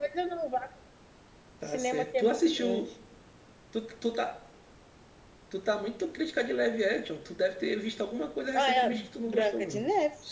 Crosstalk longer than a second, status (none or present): present